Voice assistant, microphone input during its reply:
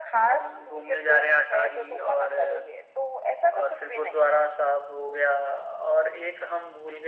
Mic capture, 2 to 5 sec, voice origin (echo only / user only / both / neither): echo only